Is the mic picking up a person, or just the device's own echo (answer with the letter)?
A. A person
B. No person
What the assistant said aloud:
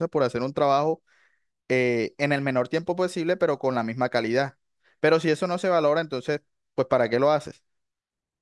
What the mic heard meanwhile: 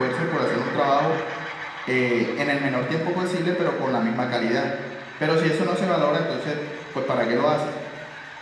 B